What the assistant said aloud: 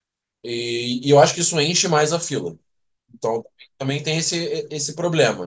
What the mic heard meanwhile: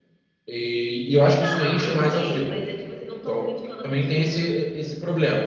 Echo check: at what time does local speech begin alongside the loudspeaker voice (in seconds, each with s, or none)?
1.4 s